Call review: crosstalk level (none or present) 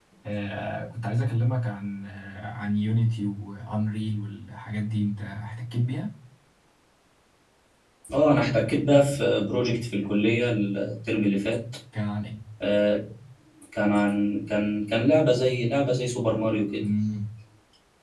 none